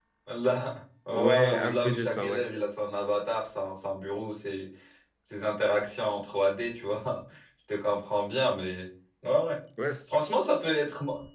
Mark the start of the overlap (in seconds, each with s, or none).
1.1 s